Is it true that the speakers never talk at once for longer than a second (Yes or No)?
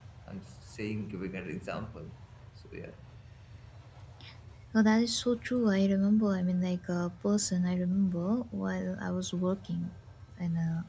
Yes